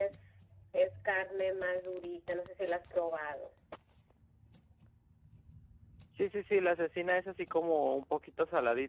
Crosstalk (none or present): none